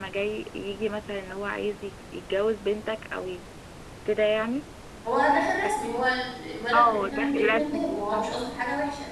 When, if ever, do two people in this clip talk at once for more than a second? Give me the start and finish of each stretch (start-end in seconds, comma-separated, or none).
6.7-8.2